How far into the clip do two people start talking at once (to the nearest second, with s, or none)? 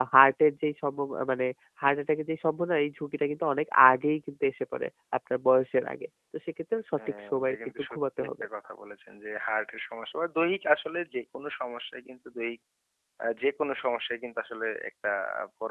7 s